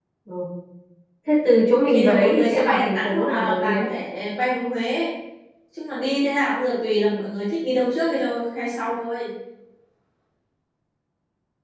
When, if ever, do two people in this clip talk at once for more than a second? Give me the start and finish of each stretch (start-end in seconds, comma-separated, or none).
1.9-3.9